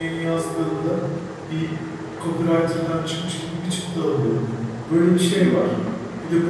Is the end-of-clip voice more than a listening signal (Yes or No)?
No